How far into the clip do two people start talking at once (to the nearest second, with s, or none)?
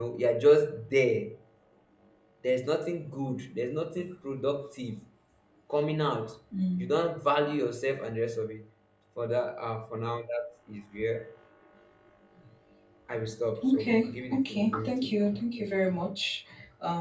14 s